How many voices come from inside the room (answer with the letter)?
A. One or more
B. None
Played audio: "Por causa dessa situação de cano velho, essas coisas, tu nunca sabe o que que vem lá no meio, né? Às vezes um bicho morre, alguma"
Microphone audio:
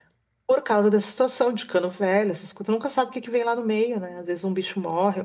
B